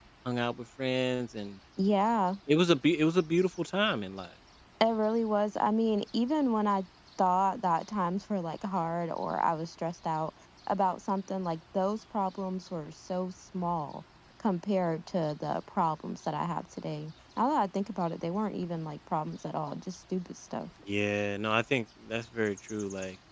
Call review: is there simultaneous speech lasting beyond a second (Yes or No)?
No